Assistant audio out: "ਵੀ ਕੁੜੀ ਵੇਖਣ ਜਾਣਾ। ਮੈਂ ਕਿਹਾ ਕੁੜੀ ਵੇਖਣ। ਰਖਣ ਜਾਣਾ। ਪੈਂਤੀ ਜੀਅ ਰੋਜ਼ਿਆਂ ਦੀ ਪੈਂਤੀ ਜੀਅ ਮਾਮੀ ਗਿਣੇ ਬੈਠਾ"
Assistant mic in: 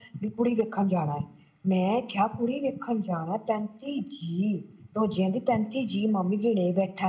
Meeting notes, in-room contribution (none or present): none